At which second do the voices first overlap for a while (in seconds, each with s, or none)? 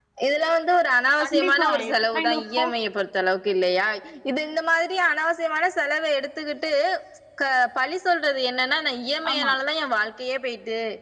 1.2 s